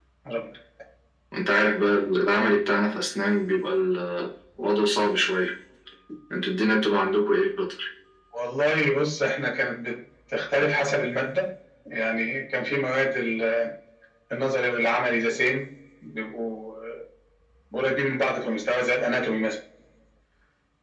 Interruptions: none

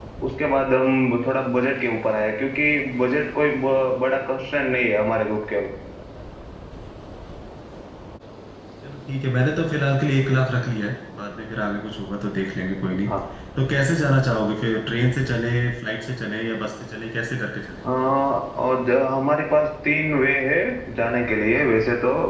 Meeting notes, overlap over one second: none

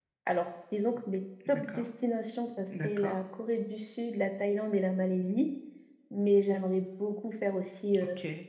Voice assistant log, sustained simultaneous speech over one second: none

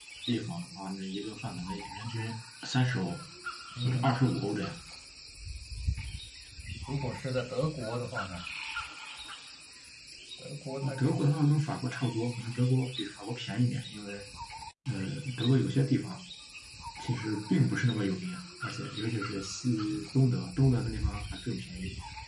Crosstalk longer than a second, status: none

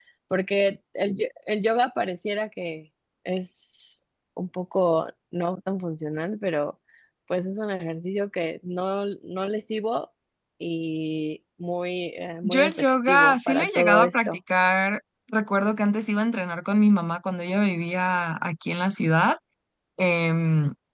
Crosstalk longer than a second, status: present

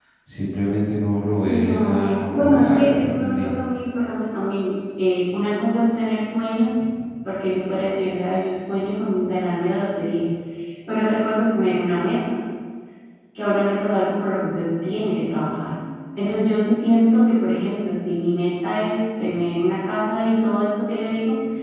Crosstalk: present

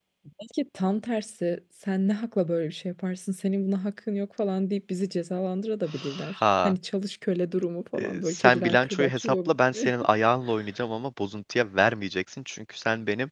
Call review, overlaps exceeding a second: present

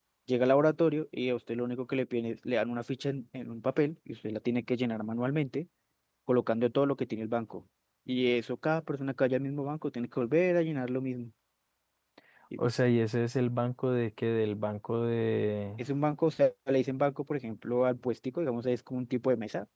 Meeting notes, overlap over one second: none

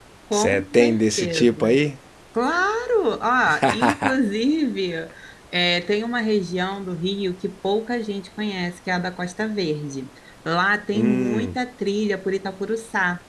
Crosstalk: present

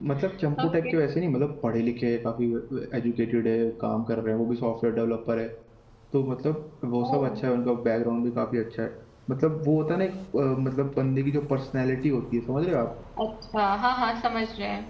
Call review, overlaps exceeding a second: none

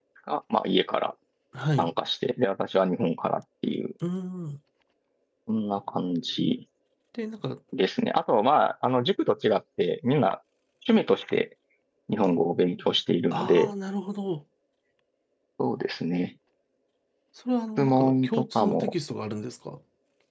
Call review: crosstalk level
present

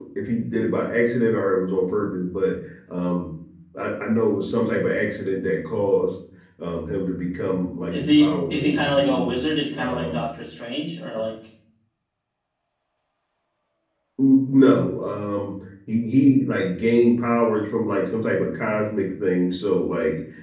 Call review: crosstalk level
present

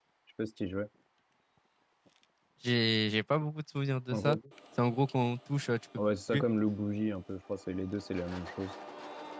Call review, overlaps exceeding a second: none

